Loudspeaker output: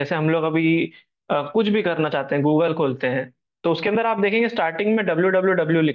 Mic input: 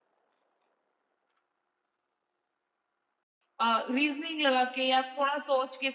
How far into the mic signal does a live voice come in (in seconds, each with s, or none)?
3.6 s